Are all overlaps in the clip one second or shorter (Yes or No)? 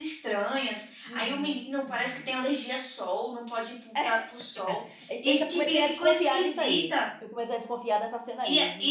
No